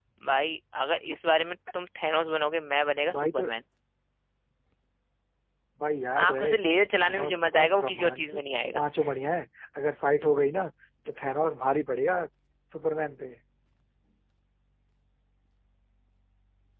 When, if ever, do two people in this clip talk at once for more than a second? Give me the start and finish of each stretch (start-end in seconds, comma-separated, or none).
7.0-8.8